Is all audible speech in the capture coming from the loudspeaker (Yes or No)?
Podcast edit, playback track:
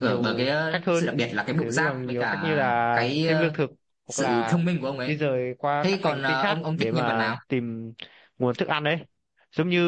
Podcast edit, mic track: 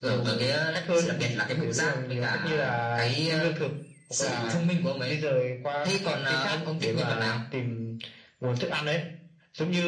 Yes